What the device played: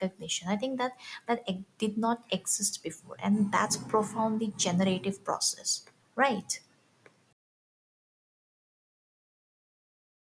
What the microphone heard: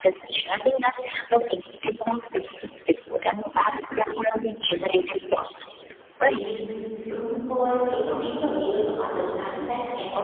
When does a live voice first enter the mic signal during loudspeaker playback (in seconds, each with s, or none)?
6.2 s